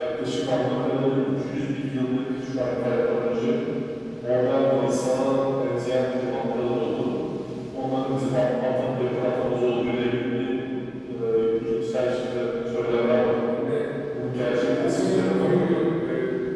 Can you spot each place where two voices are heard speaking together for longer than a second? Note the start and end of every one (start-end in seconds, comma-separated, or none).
14.3-15.8